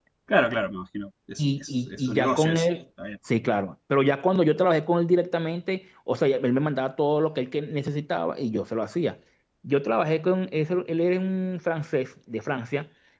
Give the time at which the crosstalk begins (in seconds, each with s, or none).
1.4 s